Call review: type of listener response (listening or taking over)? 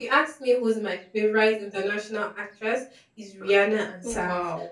listening